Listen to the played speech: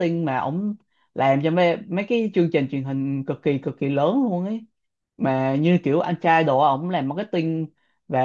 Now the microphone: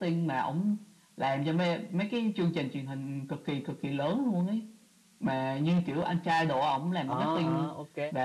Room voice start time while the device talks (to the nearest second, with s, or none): 7 s